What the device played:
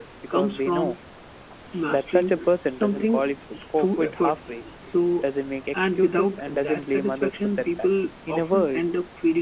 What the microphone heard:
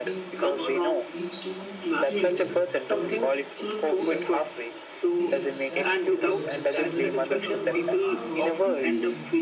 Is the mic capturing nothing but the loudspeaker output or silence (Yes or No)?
No